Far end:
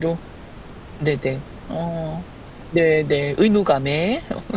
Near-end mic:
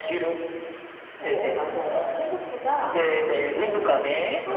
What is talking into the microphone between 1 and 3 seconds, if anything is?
both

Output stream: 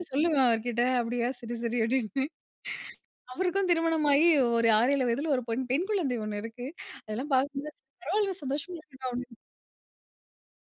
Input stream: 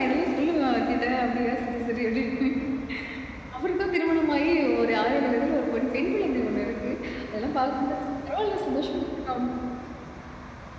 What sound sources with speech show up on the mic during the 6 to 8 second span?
echo only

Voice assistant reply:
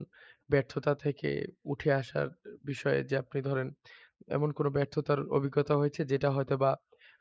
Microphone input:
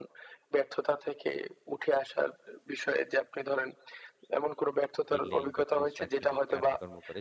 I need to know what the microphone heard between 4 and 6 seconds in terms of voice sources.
both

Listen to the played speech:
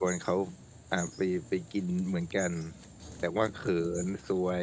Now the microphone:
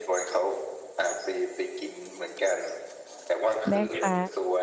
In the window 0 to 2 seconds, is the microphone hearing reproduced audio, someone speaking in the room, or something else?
echo only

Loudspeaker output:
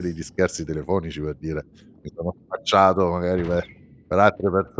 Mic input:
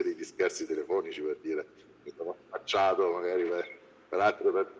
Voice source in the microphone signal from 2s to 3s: echo only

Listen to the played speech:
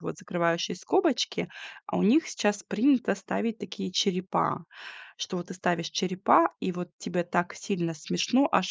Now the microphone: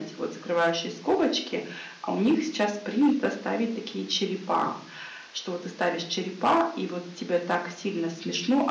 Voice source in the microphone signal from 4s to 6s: echo only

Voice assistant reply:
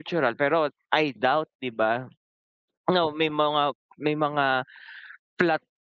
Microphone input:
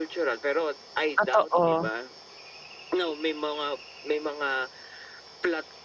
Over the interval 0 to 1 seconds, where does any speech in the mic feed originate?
echo only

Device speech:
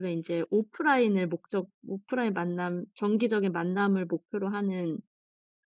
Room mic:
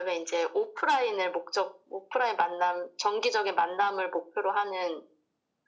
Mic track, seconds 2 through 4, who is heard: echo only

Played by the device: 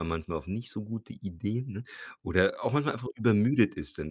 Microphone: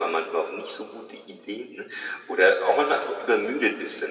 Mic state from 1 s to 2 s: echo only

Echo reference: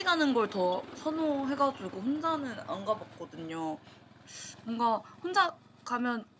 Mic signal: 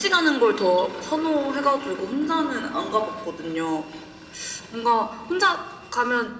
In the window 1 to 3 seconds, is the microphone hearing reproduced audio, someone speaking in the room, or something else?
echo only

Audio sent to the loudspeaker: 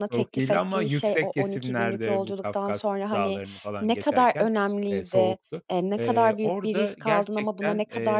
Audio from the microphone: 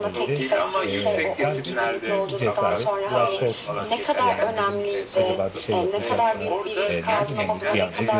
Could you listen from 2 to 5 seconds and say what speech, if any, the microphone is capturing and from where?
both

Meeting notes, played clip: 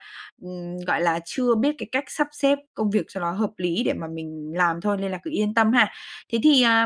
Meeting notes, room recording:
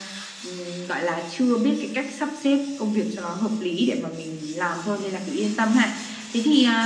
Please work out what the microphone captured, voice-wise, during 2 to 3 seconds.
echo only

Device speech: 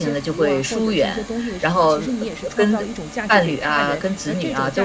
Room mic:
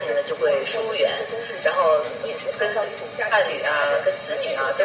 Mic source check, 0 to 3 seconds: echo only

